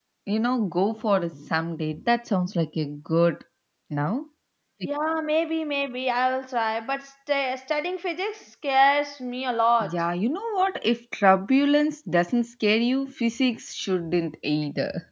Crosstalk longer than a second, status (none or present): none